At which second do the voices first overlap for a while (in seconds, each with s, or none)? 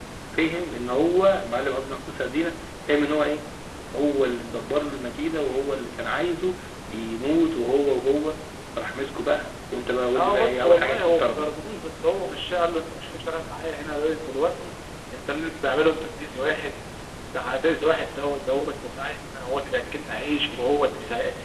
10.1 s